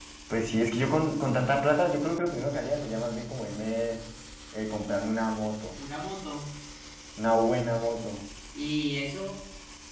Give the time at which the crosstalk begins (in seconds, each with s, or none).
none